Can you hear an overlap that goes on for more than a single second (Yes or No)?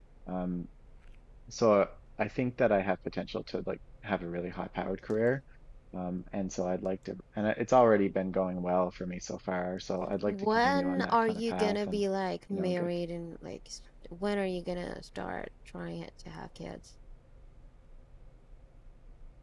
Yes